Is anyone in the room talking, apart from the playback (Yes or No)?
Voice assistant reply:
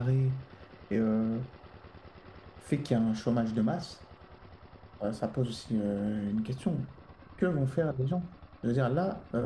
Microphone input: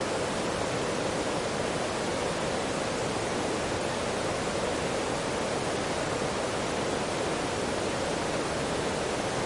No